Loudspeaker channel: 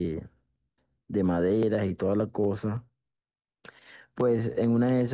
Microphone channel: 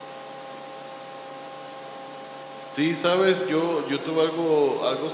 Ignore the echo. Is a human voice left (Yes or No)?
Yes